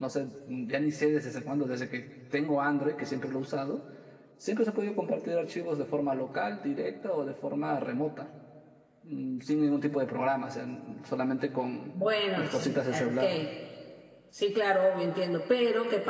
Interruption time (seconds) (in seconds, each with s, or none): 11.9 s